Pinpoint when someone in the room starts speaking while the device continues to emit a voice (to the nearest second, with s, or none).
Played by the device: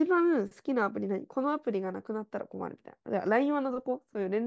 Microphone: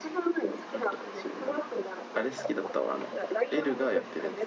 1 s